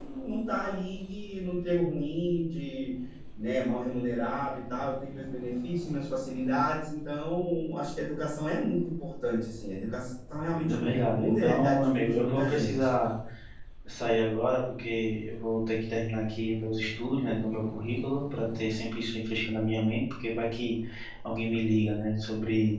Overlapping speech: Yes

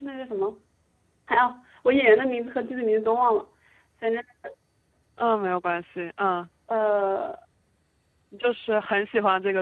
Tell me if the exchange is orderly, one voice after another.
Yes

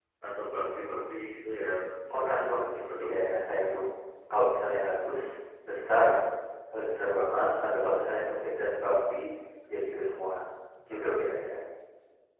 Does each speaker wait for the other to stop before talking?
No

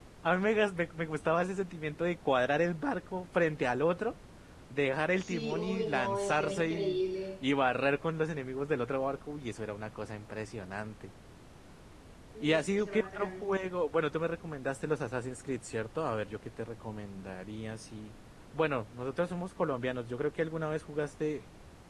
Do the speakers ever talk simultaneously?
Yes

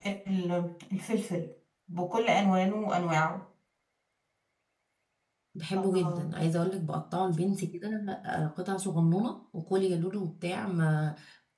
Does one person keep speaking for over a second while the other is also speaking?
No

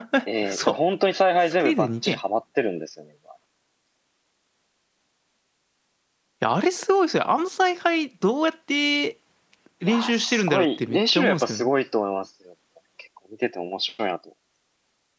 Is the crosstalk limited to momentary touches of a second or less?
No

